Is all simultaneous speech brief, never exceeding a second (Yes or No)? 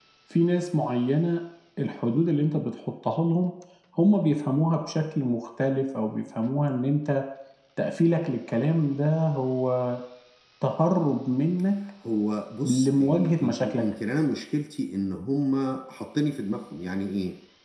No